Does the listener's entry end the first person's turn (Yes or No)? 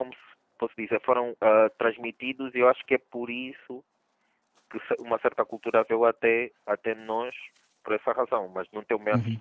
Yes